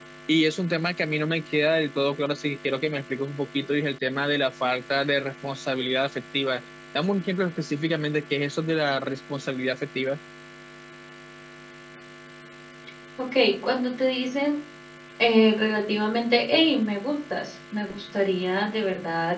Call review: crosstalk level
none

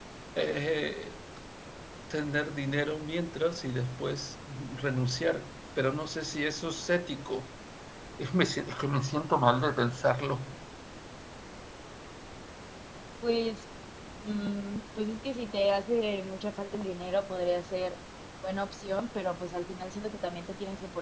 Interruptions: none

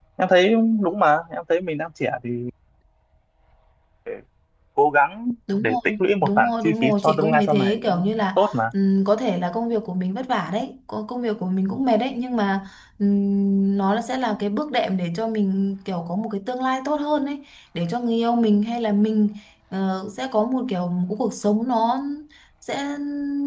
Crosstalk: present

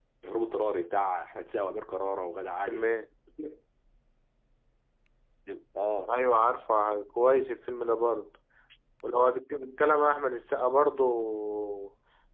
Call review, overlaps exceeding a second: none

